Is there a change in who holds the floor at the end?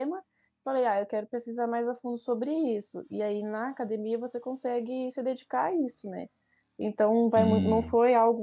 No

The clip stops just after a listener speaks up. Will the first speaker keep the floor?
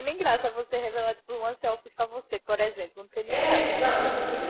No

